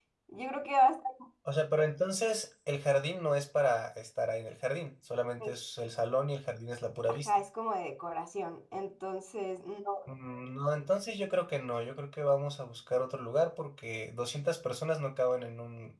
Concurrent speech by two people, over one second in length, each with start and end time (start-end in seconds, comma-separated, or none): none